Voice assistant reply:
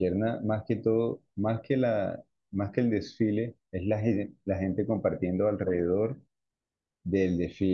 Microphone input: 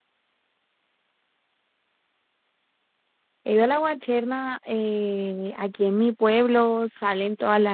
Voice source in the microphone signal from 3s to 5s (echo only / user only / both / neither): user only